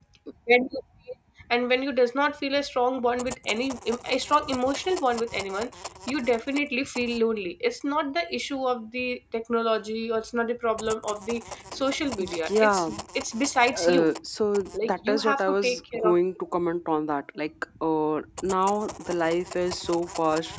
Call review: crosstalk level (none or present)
present